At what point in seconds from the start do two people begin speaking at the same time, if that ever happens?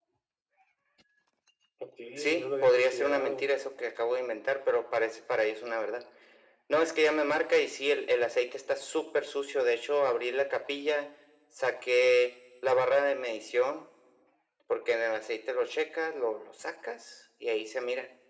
2 s

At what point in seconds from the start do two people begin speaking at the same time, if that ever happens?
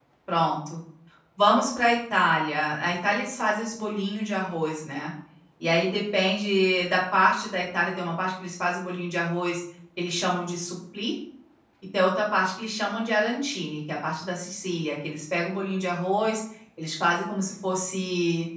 none

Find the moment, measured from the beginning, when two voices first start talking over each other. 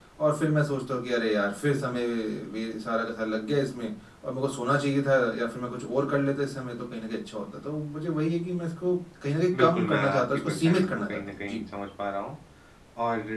10 s

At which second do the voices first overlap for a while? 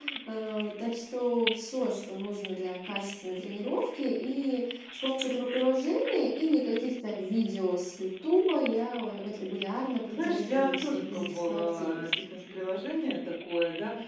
10 s

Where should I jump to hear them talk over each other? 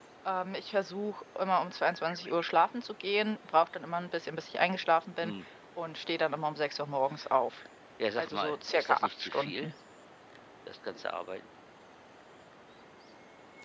8 s

